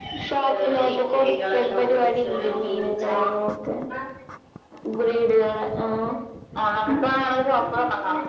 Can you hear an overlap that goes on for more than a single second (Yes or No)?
Yes